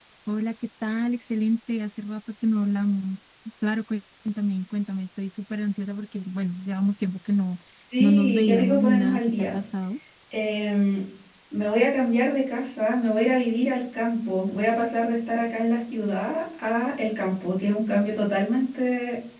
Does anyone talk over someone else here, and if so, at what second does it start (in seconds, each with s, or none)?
8.0 s